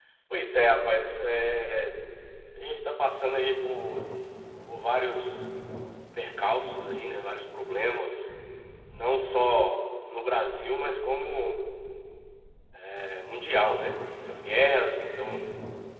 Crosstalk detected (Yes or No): No